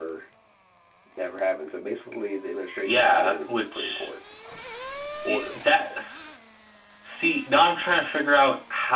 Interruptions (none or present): present